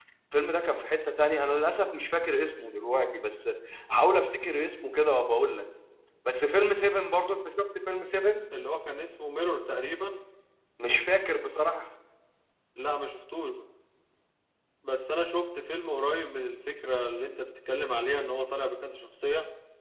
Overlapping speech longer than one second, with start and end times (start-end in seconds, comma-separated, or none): none